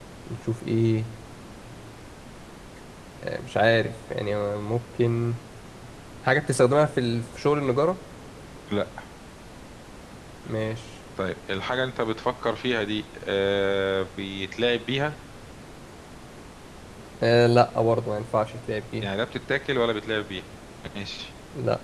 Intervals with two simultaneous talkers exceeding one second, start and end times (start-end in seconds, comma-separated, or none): none